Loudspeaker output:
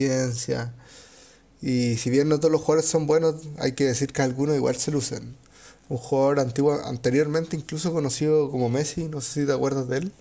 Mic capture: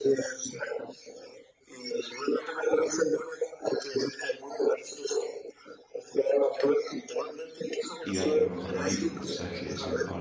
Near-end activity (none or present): present